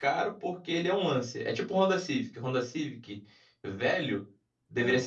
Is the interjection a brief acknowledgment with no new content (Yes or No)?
Yes